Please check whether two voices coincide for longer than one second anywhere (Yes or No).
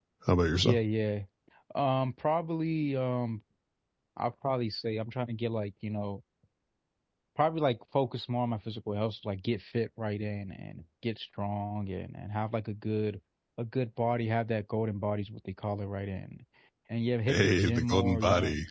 Yes